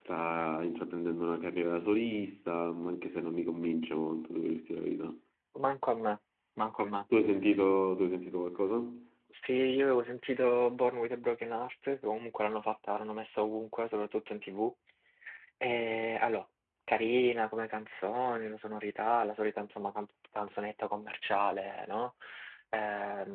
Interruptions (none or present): none